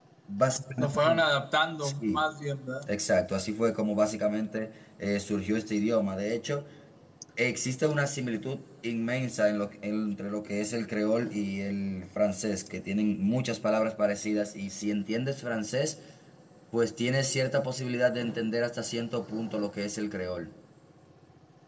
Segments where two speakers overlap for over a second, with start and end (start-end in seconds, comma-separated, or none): none